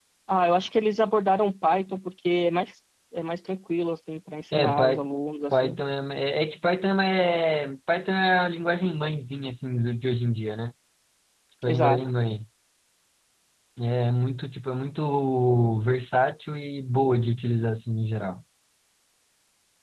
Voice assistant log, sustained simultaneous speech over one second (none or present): none